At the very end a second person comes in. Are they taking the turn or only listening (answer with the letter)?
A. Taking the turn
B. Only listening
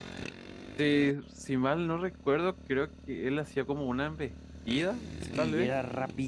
A